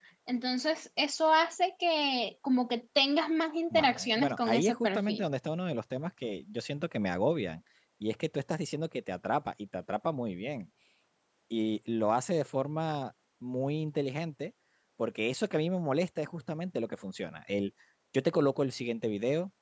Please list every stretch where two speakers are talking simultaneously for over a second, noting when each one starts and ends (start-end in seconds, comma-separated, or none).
3.7-5.2